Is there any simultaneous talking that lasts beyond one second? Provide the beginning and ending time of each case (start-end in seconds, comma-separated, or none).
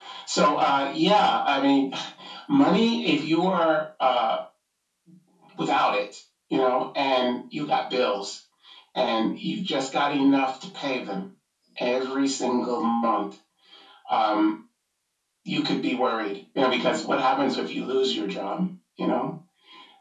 none